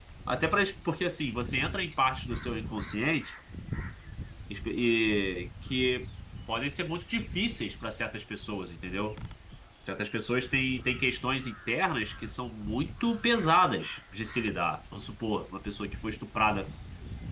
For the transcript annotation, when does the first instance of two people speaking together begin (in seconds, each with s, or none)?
none